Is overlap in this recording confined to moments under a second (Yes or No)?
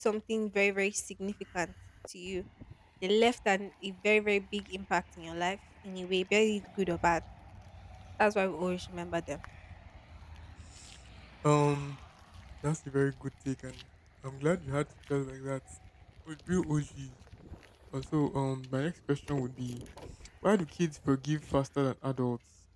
Yes